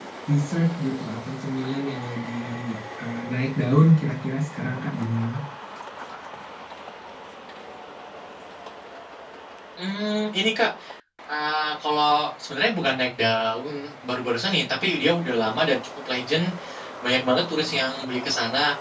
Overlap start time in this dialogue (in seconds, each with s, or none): none